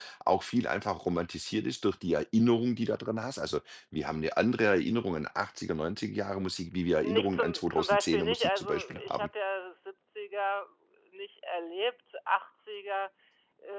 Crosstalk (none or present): present